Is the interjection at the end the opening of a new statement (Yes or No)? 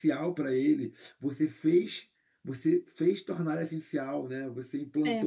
No